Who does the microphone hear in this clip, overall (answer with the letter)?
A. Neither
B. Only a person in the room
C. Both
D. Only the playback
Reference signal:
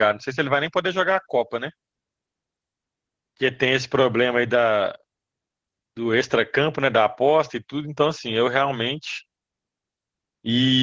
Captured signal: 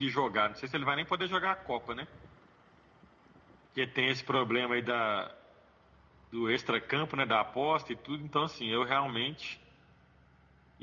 D